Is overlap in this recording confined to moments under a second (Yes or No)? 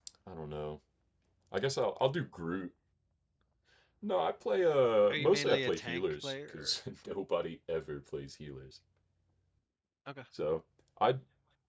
No